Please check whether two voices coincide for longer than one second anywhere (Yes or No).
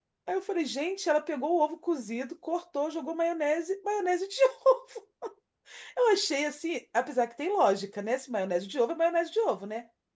No